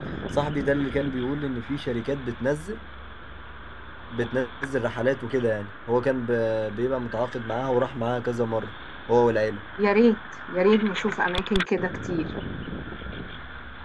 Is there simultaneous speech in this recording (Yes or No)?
No